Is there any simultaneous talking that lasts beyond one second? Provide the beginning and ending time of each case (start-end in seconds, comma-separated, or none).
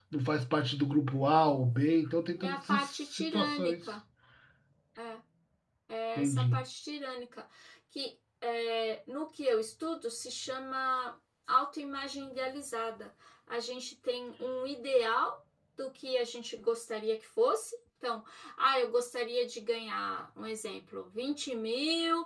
2.4-3.9